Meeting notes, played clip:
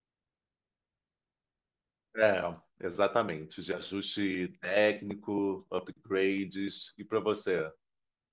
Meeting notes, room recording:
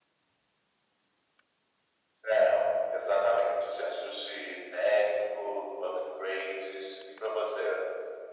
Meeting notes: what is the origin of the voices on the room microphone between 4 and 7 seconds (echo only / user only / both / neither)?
echo only